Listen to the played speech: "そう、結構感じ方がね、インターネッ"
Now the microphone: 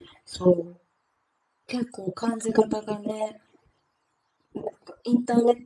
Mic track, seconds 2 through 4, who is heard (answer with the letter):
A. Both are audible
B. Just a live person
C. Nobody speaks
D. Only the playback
D